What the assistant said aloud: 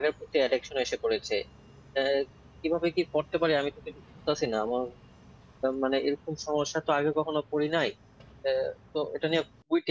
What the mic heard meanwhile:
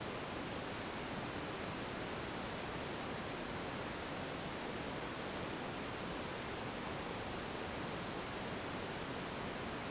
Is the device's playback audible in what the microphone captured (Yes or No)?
No